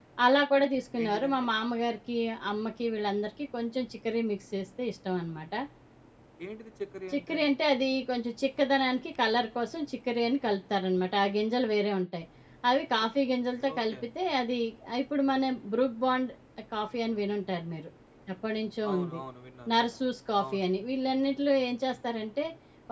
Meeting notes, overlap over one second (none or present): none